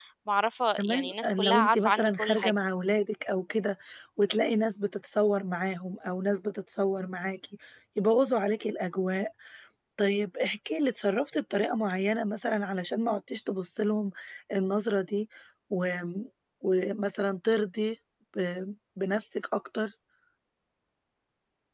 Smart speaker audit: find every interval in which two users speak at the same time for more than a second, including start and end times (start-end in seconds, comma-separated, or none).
0.8-2.5